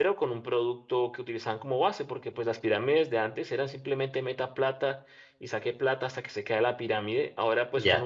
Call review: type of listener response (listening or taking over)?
listening